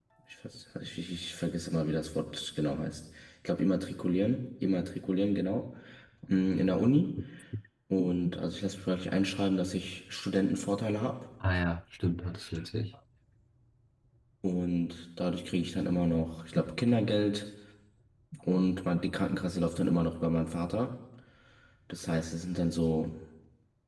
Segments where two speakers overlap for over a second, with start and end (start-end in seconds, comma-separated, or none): none